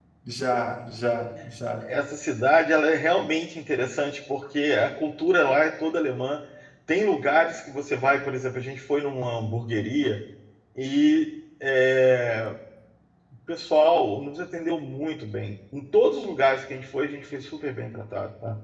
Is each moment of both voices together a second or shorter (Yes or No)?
Yes